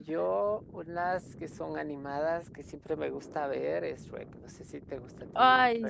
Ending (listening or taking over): taking over